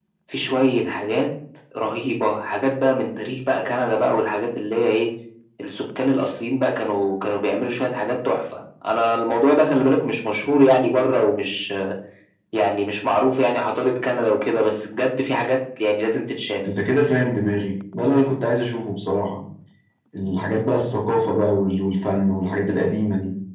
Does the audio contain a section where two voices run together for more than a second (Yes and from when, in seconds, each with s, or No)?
No